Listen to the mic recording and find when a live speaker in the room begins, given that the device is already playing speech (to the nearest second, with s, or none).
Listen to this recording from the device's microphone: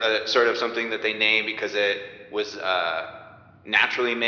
none